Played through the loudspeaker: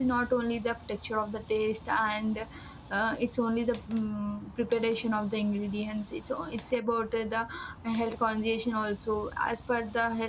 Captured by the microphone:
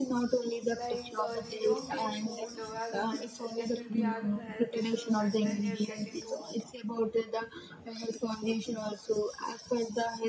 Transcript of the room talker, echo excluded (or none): Like uh, if you don't take food uh, as a medicine, then you'll be having health issues, and then you'll get into